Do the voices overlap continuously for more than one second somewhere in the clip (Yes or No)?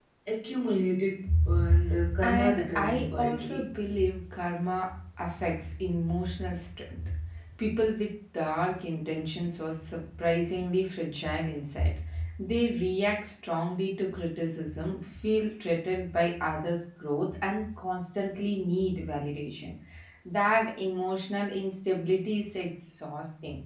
Yes